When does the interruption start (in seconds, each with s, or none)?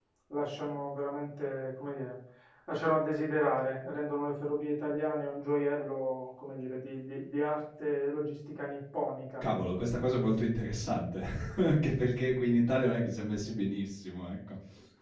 none